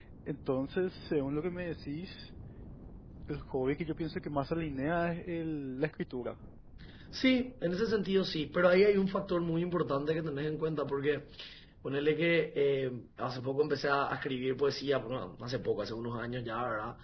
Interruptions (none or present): none